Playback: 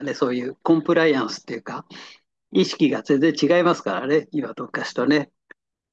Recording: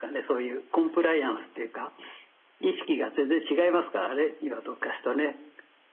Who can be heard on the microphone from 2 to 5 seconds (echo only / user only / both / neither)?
echo only